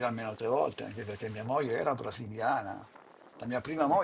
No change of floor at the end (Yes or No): Yes